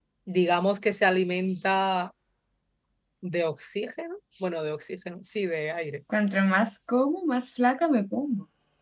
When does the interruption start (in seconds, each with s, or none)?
none